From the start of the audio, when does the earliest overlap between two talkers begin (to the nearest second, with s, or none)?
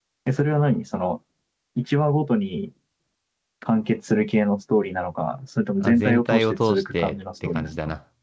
6 s